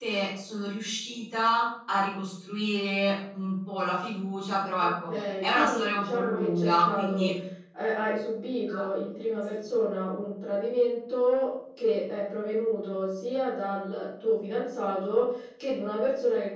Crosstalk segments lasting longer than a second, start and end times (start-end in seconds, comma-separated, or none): 4.8-7.3